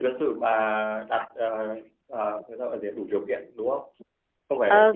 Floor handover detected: Yes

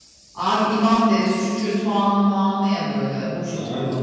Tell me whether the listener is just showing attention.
No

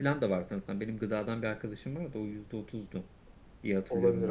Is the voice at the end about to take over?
Yes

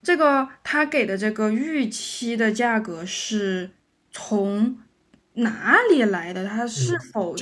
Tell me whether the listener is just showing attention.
No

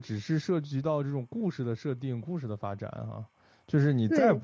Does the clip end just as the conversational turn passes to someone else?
No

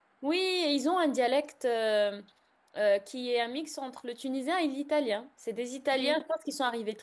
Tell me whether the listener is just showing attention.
Yes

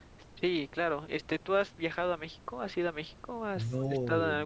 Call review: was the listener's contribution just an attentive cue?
No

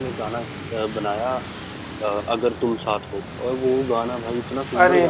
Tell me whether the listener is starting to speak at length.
Yes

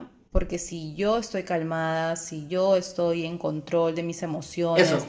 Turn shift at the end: No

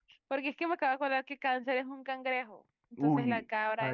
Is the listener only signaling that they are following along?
No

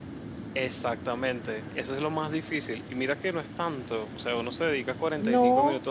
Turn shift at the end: No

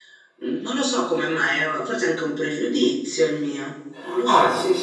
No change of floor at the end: No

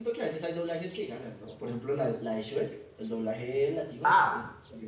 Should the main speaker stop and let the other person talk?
Yes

